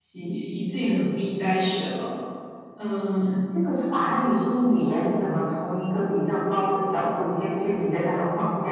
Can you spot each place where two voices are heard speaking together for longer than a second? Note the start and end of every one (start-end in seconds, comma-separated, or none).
none